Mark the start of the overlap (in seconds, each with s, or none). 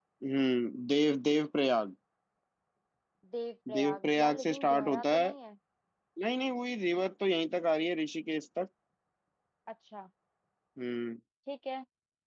3.7 s